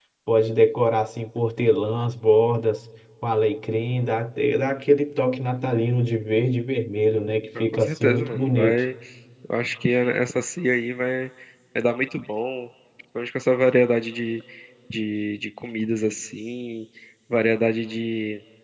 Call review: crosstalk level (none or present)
present